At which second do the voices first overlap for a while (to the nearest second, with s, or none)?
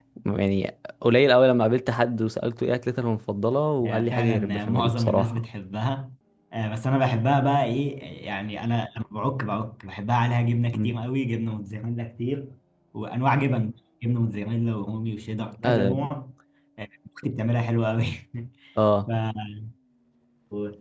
4 s